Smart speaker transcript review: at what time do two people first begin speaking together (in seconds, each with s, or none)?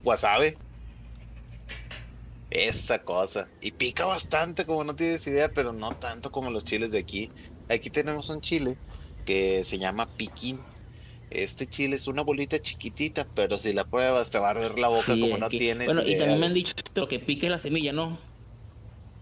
14.9 s